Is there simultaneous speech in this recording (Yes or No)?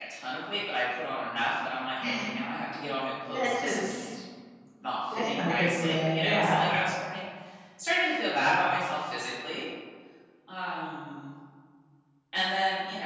Yes